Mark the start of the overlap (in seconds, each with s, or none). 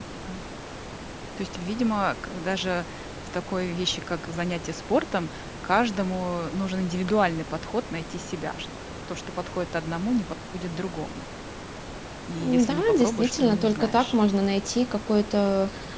12.4 s